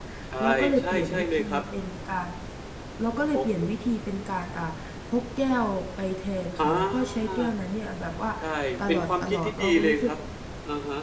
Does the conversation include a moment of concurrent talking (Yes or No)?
Yes